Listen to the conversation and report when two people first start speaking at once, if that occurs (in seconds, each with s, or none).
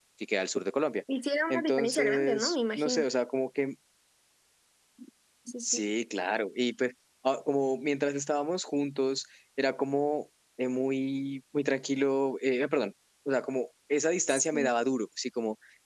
1.5 s